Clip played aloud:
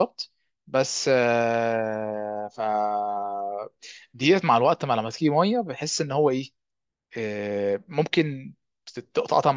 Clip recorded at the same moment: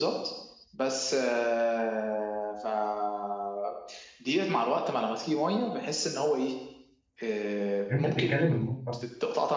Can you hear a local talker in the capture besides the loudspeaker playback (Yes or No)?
Yes